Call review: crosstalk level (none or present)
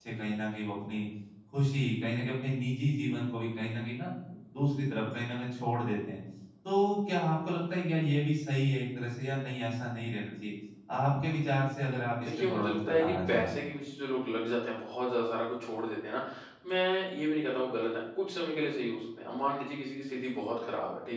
present